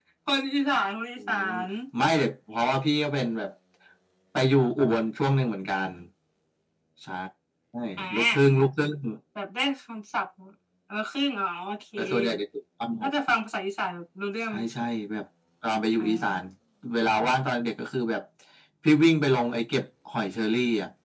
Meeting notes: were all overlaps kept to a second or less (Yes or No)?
Yes